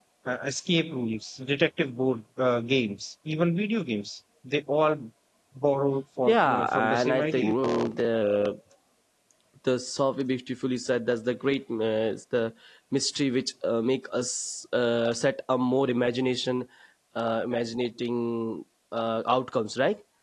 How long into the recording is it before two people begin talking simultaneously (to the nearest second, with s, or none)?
6 s